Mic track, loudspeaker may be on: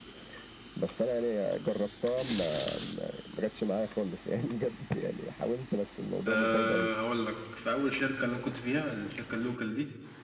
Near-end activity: present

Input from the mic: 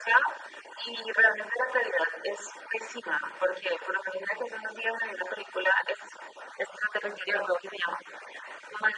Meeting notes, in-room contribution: none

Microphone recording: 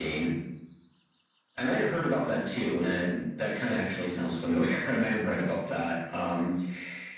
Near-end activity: none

